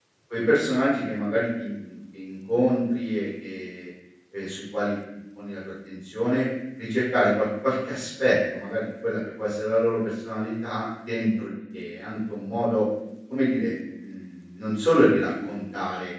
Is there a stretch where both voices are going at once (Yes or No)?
No